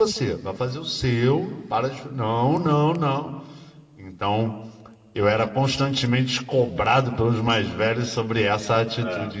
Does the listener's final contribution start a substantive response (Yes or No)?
No